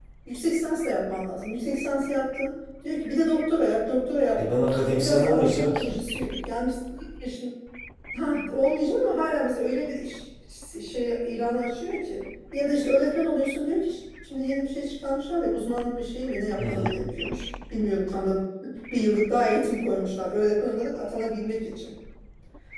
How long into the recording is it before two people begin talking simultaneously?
4 s

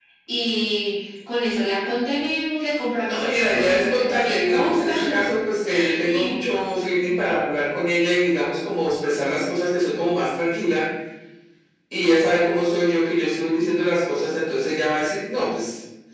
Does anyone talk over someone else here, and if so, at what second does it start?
3 s

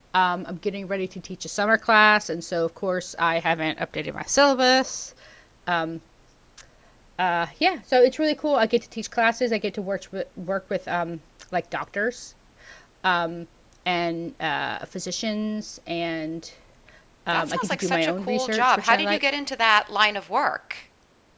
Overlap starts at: 17 s

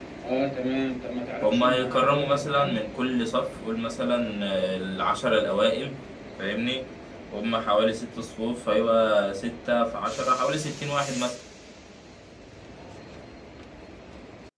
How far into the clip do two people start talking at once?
1 s

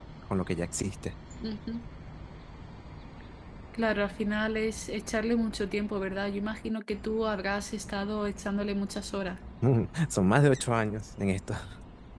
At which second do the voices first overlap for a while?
none

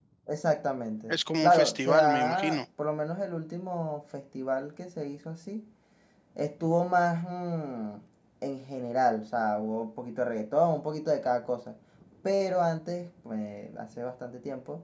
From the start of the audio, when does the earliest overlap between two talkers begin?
1 s

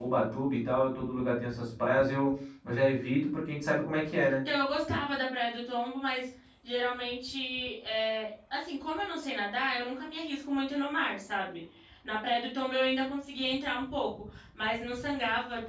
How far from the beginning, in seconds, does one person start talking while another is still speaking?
none

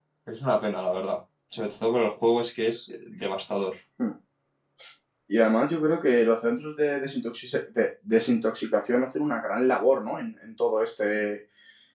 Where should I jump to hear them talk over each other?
none

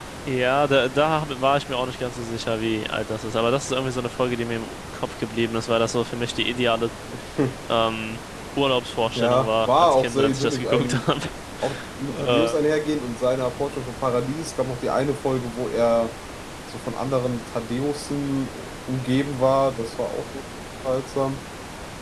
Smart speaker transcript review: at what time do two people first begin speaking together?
9 s

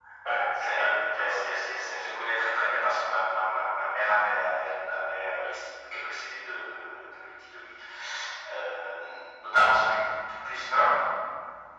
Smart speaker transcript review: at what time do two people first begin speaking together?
1 s

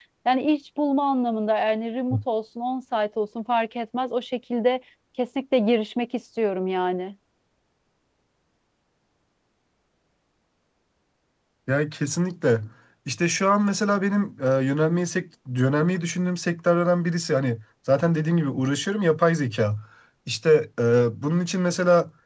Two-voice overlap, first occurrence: none

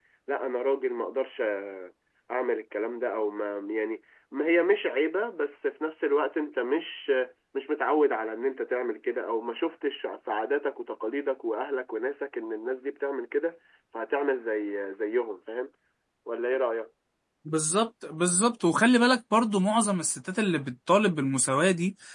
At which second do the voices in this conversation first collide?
none

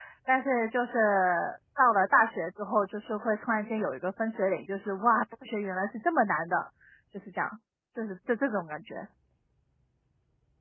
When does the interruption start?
none

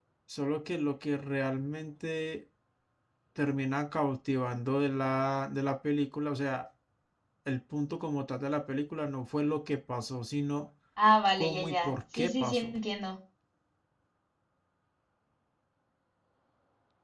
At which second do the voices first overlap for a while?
11 s

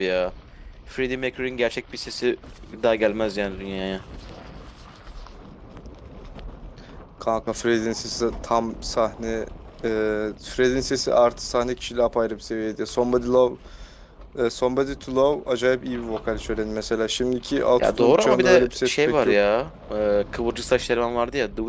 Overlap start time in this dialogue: 18 s

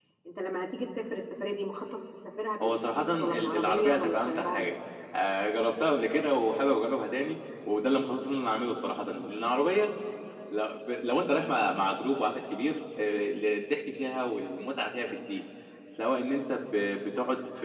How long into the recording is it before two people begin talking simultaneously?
3 s

